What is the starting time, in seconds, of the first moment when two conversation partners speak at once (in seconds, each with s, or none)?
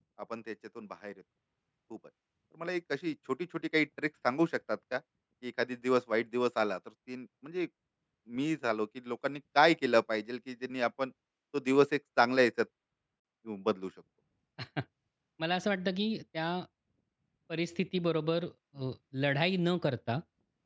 none